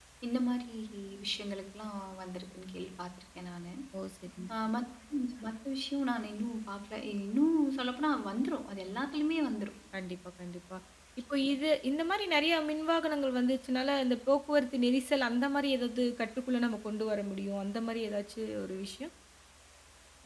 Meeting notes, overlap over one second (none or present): none